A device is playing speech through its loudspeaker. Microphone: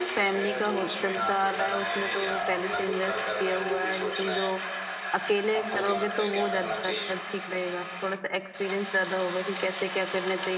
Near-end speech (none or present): present